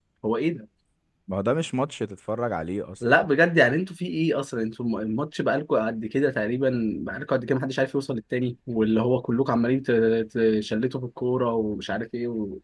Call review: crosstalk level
none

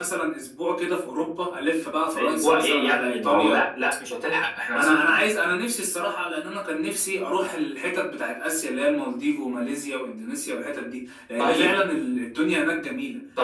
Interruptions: present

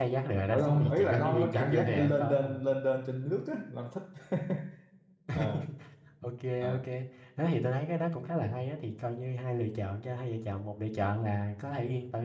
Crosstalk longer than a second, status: present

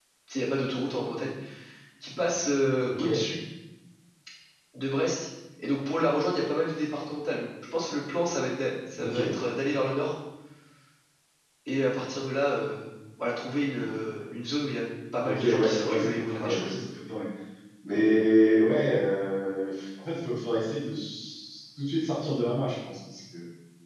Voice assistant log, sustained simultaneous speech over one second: present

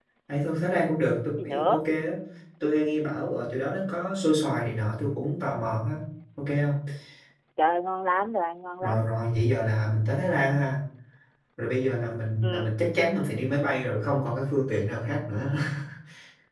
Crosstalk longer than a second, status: none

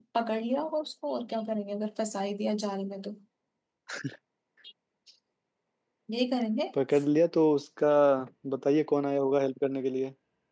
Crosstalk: none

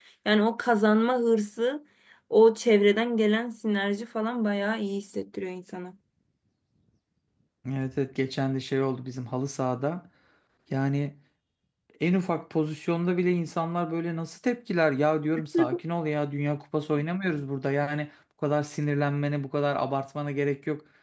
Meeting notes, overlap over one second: none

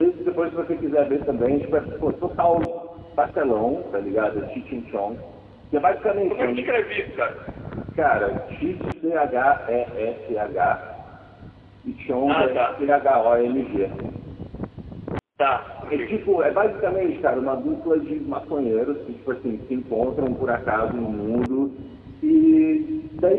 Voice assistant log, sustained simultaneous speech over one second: none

